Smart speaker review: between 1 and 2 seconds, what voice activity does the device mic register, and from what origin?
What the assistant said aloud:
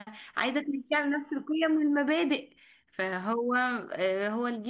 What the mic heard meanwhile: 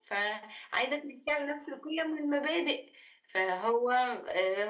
echo only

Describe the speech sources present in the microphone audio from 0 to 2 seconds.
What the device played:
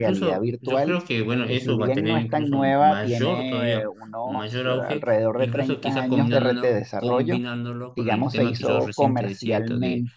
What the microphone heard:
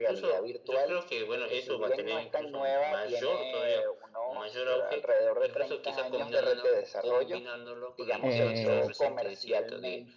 echo only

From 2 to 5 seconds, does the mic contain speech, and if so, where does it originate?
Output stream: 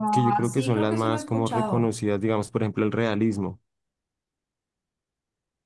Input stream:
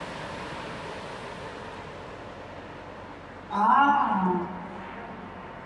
user only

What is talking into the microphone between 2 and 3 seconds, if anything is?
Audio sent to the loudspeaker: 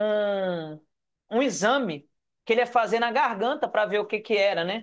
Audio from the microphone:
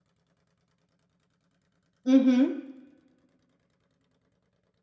user only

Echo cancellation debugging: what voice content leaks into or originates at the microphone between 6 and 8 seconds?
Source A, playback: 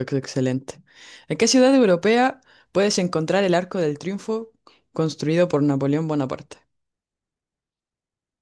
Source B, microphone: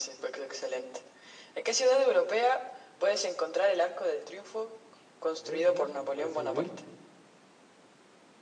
both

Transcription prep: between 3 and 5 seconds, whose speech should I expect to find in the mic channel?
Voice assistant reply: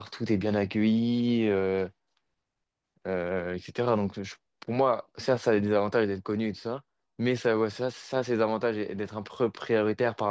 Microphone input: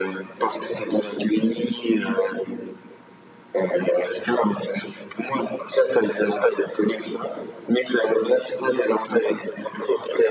echo only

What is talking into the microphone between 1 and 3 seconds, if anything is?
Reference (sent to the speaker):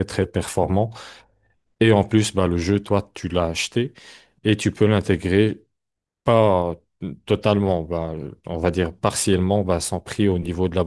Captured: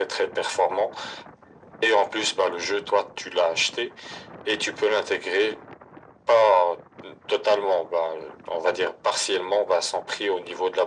echo only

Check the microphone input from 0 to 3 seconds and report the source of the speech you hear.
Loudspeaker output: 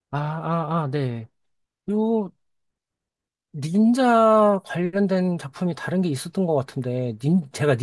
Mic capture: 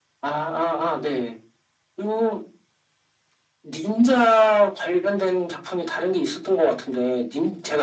echo only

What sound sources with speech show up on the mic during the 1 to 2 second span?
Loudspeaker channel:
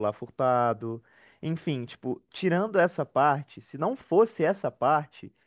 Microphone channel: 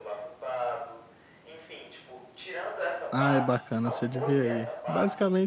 echo only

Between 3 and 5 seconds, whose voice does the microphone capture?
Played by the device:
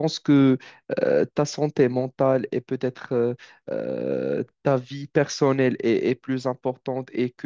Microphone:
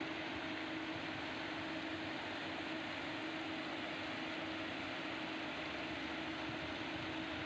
neither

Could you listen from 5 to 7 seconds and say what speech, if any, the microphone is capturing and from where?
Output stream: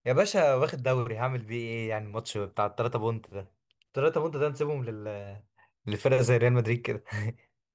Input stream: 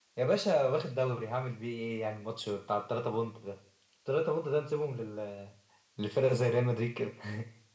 echo only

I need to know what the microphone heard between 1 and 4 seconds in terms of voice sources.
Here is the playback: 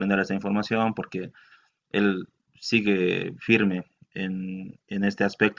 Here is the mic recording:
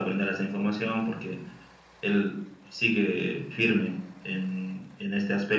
echo only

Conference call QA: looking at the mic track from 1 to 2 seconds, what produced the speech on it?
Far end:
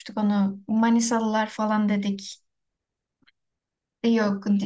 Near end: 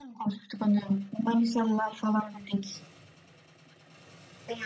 echo only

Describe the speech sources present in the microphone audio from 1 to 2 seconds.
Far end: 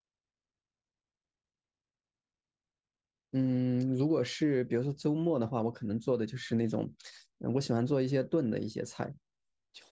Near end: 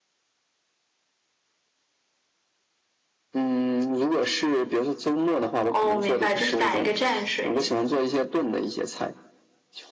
neither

